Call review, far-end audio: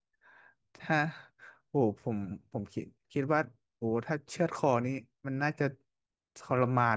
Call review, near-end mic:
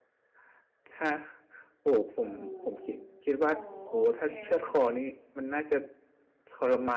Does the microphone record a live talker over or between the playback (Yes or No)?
Yes